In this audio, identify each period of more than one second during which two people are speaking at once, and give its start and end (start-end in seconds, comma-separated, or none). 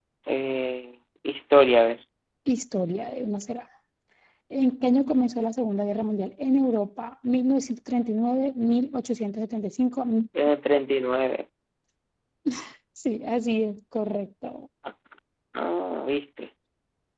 none